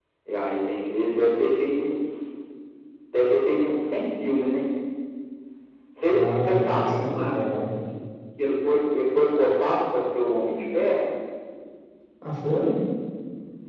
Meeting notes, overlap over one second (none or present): present